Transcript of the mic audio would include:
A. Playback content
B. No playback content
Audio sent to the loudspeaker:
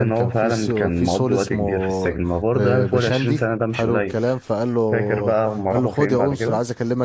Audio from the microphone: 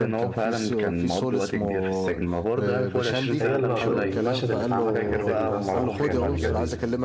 A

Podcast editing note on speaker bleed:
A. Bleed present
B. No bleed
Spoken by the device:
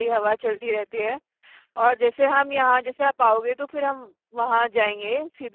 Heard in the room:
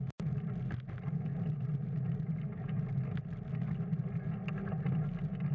B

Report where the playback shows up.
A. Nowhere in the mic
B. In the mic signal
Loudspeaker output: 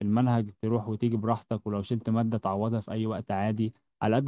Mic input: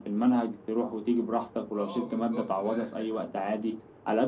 B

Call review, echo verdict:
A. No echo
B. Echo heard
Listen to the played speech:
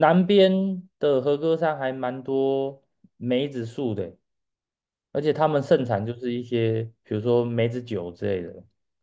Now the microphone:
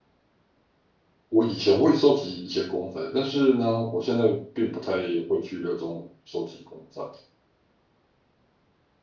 A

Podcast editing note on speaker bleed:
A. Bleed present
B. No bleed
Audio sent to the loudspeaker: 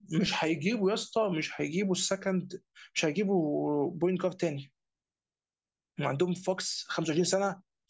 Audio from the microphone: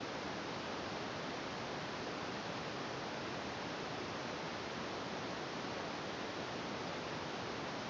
B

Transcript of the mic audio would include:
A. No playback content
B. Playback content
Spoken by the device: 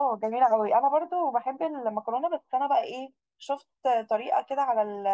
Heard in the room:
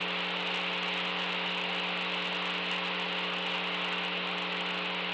A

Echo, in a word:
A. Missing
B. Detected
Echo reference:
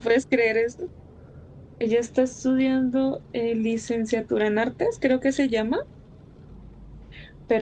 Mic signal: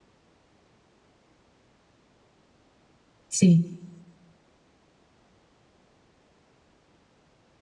A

